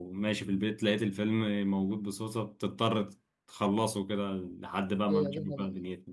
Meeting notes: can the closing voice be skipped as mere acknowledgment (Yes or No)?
No